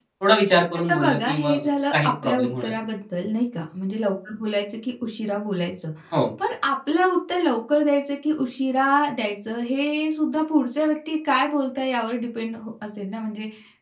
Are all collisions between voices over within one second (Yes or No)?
No